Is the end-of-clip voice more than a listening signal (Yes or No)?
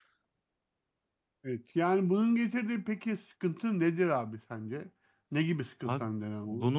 Yes